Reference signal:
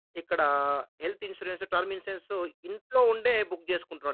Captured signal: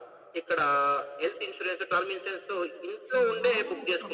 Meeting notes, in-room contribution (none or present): present